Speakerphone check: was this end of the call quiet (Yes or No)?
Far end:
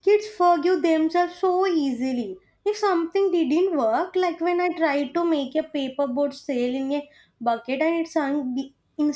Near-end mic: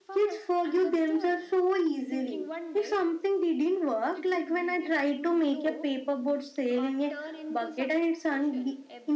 No